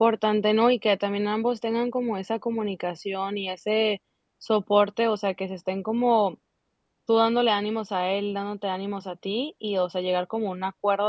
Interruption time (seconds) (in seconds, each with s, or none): none